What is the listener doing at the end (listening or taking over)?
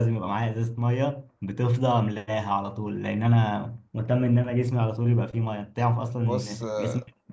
listening